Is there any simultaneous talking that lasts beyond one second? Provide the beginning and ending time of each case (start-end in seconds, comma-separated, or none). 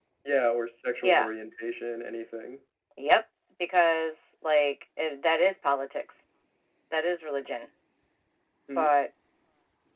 none